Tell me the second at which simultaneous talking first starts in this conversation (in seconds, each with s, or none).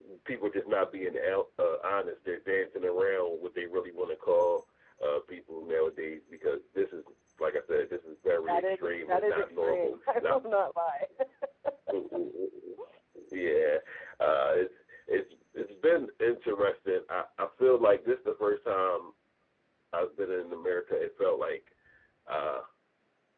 8.5 s